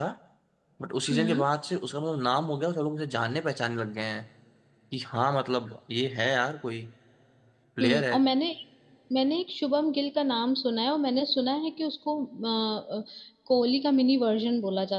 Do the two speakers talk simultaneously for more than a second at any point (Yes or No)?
No